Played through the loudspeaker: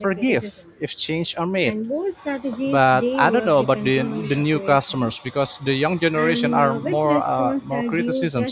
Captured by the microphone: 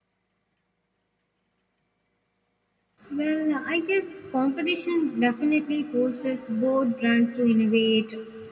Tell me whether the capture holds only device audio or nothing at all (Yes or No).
No